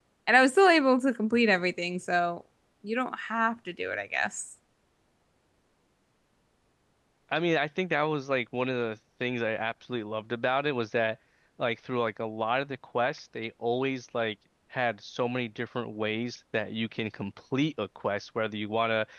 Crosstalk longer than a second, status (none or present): none